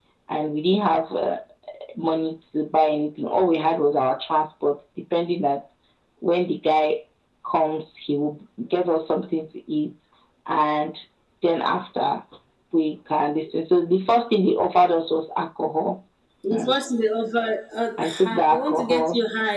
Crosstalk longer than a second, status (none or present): present